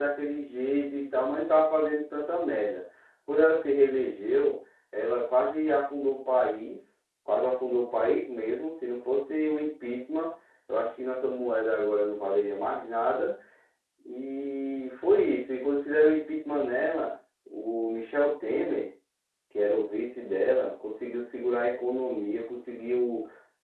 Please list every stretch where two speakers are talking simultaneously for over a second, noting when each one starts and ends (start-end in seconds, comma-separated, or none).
none